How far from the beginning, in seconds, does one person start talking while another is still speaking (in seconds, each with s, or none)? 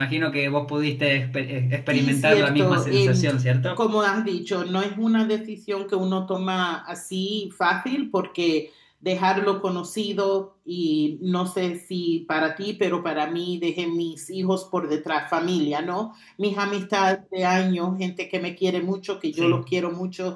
1.9 s